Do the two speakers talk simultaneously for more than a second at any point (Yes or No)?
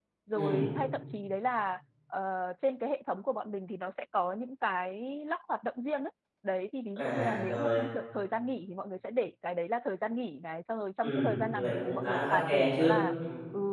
Yes